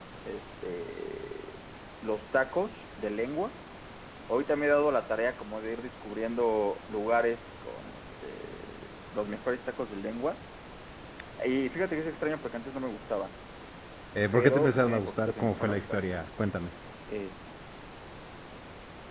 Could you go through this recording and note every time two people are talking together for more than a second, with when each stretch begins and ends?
14.3-15.8

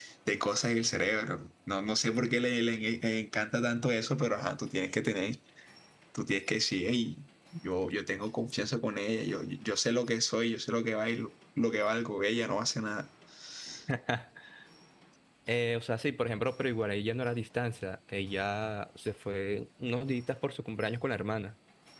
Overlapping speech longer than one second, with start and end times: none

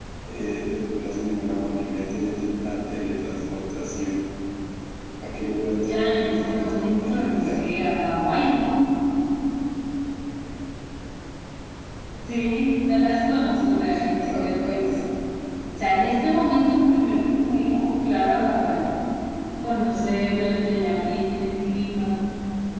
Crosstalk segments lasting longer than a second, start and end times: 5.8-7.5, 13.3-14.9

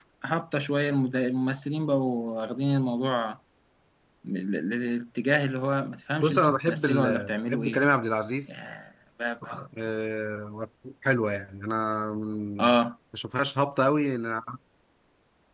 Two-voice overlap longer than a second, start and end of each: 6.2-7.8

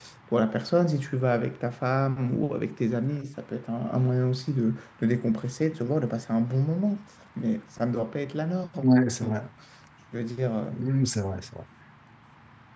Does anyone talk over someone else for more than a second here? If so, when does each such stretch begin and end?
none

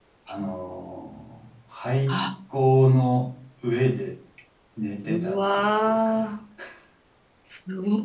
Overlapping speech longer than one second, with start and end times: 5.0-6.3

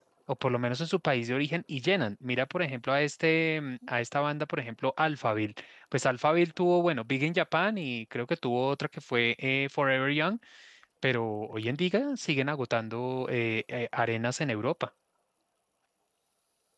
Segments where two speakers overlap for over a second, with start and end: none

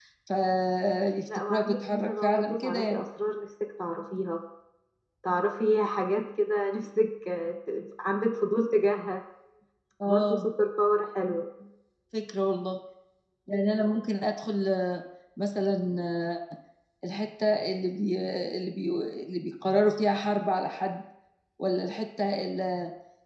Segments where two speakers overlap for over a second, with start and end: 1.5-3.0

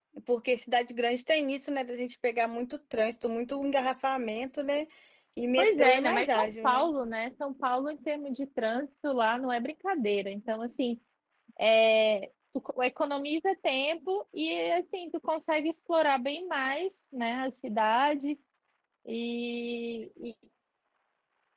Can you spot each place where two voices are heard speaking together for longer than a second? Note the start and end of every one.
5.6-6.9

